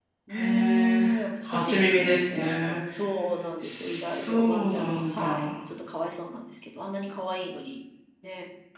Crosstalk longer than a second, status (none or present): present